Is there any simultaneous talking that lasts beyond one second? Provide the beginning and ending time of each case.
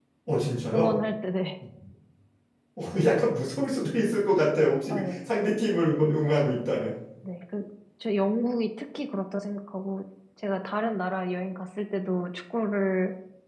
none

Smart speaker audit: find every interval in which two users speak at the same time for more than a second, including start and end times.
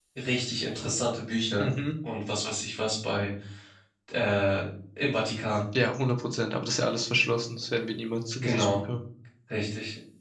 none

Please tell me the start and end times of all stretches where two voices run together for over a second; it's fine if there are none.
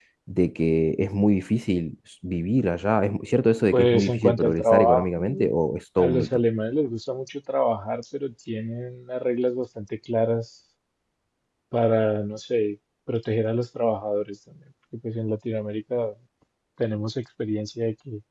3.7-5.5

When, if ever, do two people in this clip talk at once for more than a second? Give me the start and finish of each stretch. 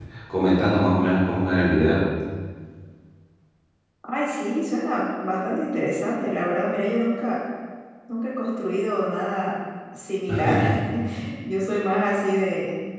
none

